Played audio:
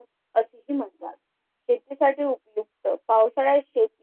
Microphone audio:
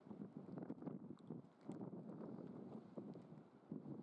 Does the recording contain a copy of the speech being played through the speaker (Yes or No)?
No